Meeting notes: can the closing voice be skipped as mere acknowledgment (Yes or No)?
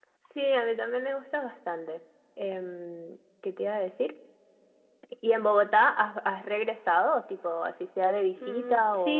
No